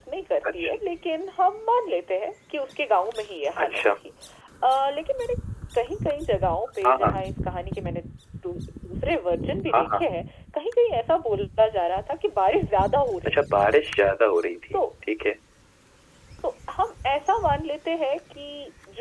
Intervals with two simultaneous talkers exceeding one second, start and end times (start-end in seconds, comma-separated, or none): none